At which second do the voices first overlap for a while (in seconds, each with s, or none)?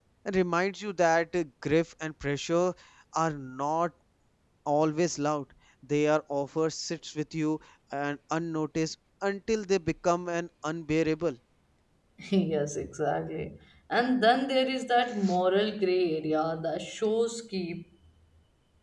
none